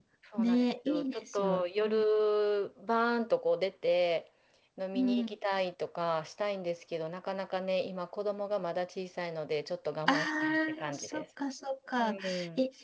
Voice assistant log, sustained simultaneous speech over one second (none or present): present